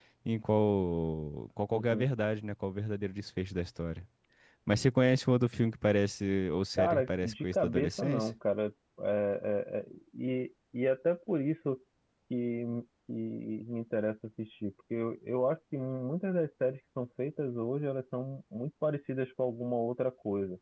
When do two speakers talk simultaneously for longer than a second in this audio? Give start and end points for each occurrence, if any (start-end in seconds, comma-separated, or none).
6.8-8.3